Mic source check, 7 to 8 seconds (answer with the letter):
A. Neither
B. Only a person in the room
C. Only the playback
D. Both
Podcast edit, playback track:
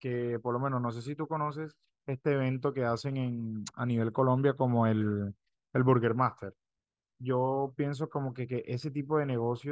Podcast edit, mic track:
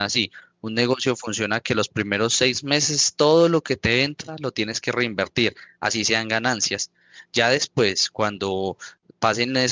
B